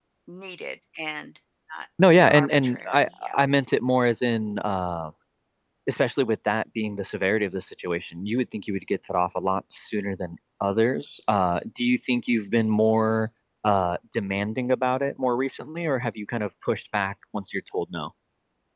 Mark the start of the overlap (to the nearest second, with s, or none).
2 s